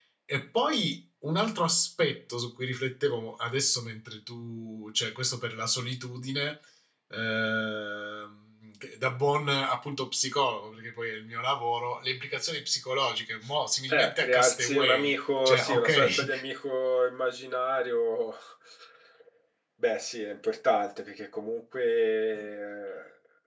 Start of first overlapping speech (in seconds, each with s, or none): 13.9 s